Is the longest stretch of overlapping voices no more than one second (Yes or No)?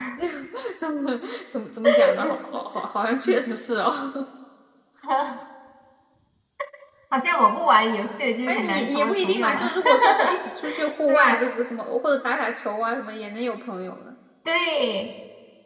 No